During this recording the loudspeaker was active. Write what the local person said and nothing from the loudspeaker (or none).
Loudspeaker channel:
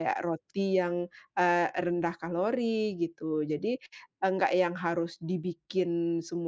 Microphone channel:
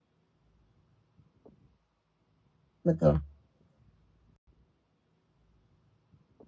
Betul.